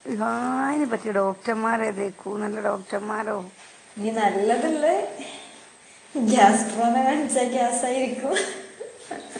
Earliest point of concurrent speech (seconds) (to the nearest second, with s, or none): none